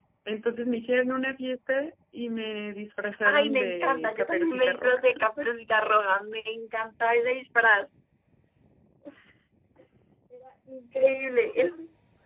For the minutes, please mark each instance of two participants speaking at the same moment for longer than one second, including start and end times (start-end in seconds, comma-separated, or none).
3.2-5.0